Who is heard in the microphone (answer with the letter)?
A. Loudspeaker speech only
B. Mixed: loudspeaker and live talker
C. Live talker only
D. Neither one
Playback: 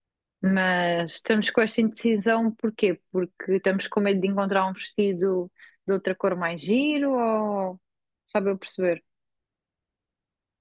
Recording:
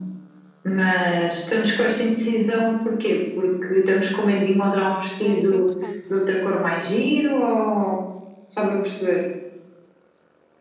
B